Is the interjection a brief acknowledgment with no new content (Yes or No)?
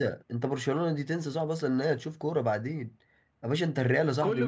No